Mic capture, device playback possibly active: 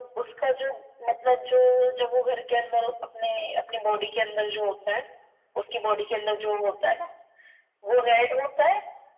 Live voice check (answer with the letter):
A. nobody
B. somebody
A